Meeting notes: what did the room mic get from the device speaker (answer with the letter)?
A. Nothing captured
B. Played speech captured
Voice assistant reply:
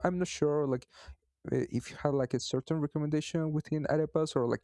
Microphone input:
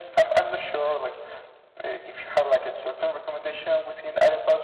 B